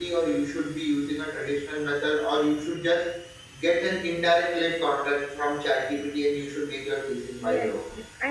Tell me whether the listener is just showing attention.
No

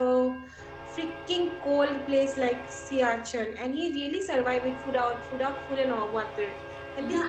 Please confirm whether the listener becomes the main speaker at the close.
Yes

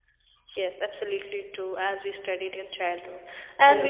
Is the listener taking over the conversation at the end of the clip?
No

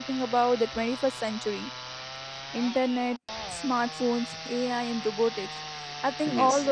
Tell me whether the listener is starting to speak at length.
No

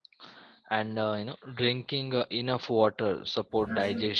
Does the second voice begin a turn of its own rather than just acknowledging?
No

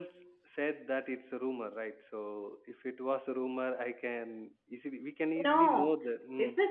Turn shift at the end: Yes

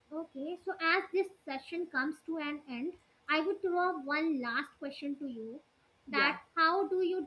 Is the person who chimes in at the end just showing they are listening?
Yes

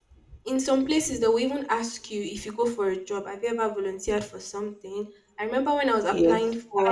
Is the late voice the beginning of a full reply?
Yes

